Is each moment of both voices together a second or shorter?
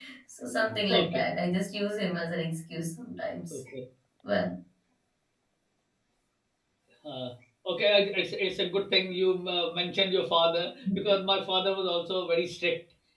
Yes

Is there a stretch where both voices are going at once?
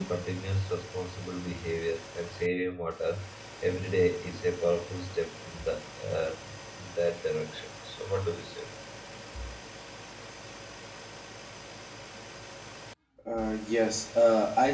No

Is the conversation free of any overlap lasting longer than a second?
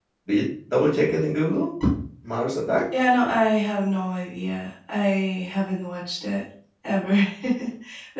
Yes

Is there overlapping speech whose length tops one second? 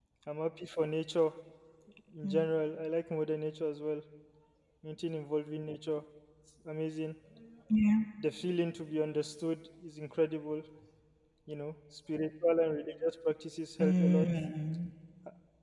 No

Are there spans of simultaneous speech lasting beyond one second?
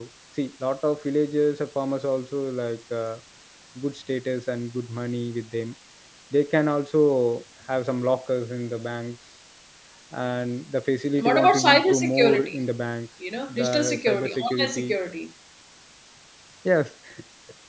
Yes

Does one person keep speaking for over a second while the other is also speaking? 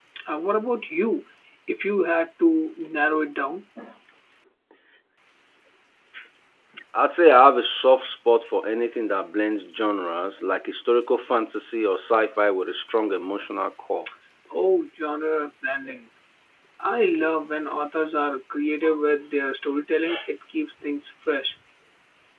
No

